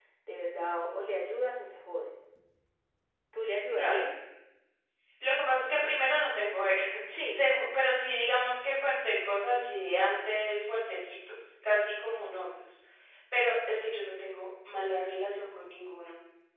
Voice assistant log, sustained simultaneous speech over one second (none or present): none